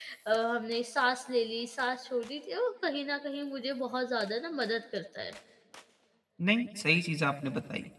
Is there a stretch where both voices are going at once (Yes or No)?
No